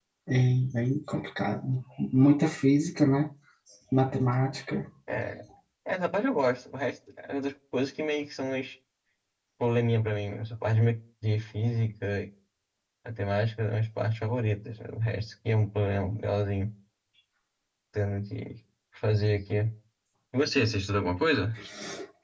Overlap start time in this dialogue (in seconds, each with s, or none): none